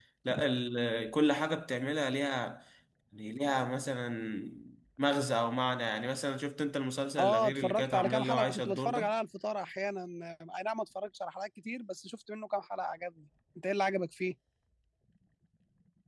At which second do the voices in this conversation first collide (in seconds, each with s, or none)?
7.2 s